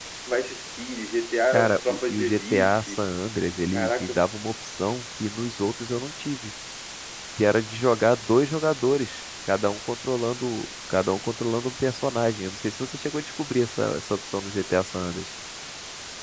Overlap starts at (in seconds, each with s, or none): 1.5 s